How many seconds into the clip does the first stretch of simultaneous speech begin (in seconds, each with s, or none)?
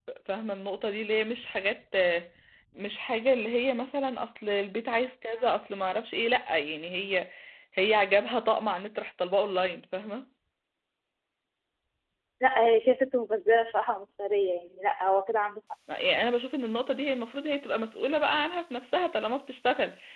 none